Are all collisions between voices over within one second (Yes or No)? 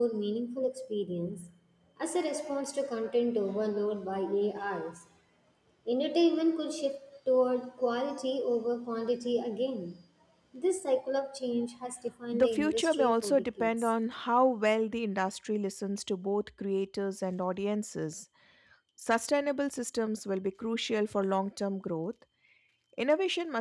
No